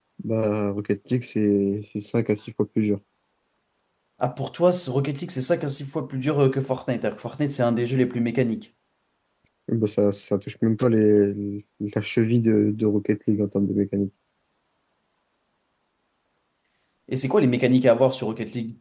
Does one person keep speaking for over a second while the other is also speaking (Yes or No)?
No